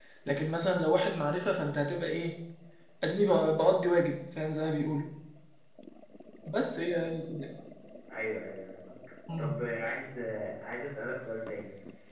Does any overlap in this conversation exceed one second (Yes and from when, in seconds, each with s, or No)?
No